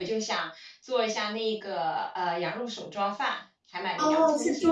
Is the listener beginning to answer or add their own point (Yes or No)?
Yes